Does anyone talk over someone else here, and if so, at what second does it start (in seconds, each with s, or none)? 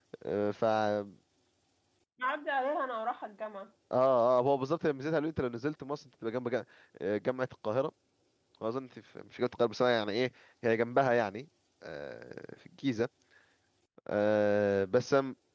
none